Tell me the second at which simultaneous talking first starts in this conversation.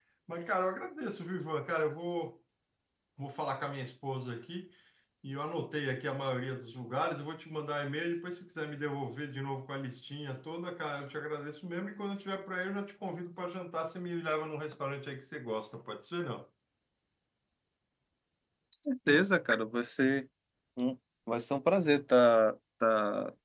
none

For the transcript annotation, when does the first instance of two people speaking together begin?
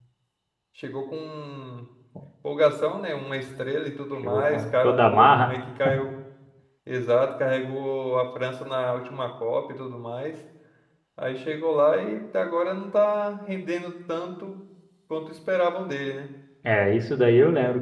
4 s

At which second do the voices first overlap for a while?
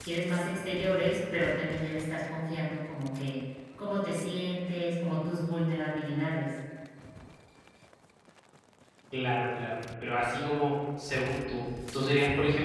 none

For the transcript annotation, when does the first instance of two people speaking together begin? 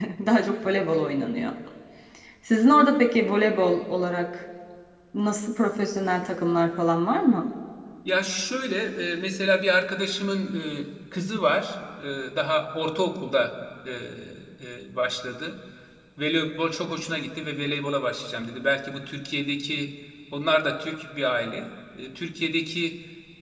none

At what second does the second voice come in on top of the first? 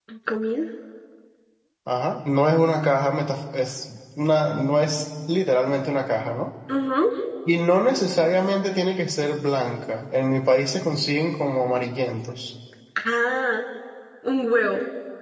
none

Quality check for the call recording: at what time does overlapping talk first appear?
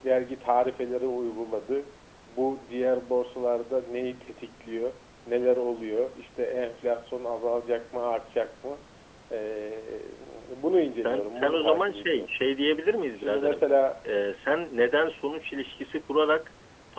11 s

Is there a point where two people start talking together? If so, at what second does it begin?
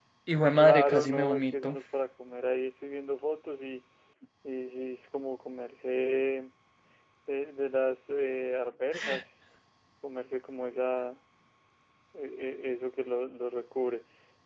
1 s

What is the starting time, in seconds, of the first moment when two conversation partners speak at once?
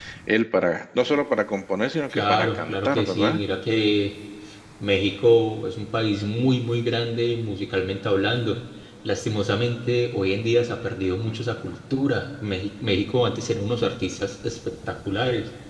2 s

